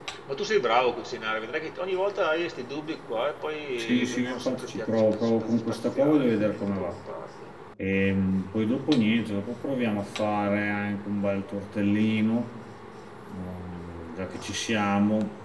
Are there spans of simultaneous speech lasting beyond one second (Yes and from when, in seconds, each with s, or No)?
Yes, from 3.8 s